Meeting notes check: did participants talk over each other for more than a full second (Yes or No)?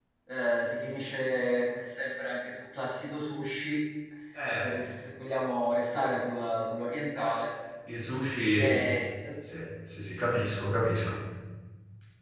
No